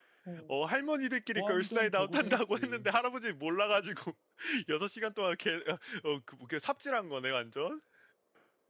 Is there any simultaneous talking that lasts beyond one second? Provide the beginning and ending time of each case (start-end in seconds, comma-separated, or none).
1.4-2.9